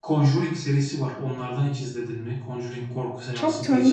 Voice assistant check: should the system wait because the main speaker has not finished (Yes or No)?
No